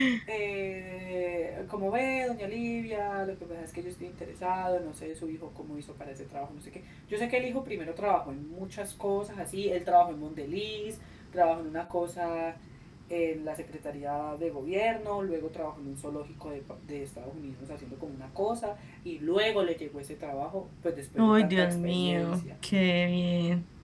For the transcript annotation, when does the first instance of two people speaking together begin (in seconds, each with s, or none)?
21.2 s